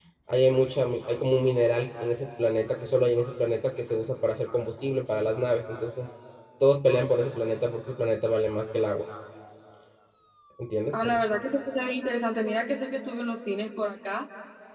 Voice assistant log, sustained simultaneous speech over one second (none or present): none